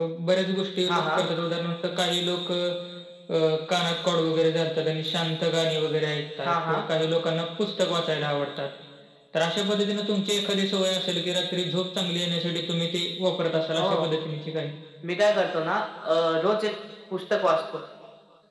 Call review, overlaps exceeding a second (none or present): none